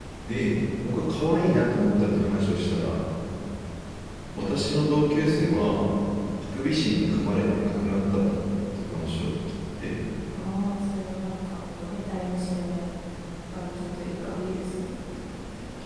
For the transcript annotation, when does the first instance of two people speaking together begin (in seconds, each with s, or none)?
none